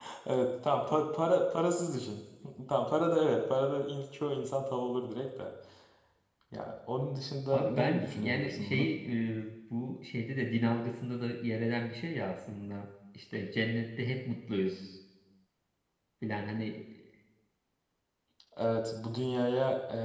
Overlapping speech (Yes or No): Yes